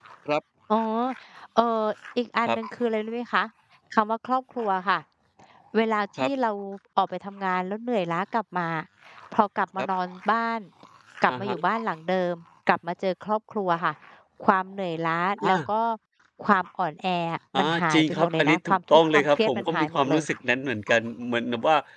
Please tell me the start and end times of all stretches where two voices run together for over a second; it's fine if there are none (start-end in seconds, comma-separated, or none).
17.6-20.2